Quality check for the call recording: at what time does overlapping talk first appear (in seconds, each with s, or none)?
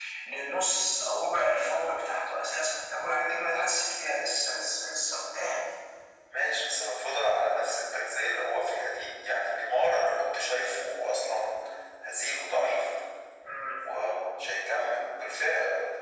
none